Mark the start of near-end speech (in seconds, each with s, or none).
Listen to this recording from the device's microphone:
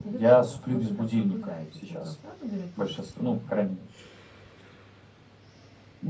none